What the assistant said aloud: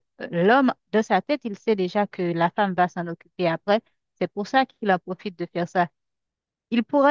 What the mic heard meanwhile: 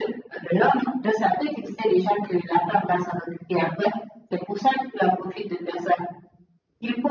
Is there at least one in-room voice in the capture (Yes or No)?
No